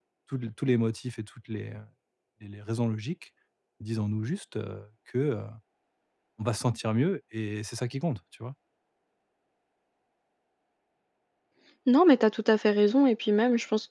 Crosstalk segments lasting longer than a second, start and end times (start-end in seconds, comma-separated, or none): none